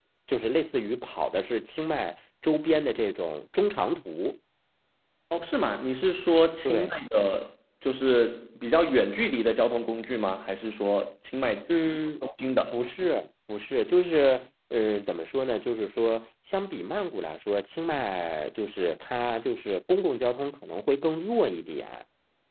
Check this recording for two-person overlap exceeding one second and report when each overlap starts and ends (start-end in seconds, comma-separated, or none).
none